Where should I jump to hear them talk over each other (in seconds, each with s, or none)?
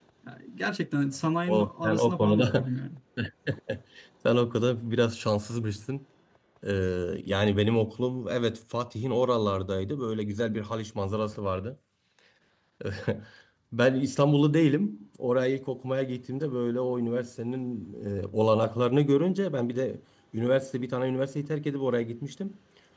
1.5 s